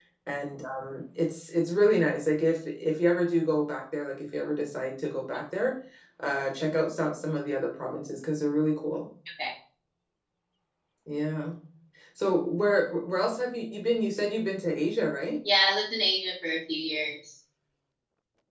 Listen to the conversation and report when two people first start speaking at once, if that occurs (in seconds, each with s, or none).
none